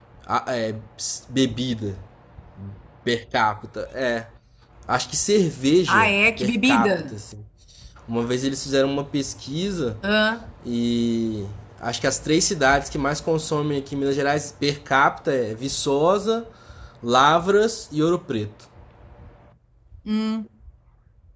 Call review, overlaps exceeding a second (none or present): present